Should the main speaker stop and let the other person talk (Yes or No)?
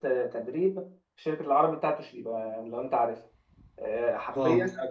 No